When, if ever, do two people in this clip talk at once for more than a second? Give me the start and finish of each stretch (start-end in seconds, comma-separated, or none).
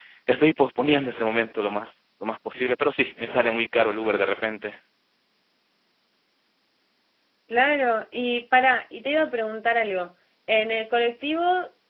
none